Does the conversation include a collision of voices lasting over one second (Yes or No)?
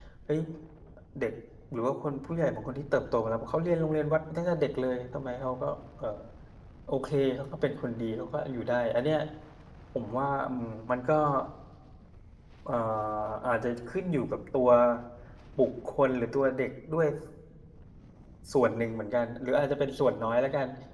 No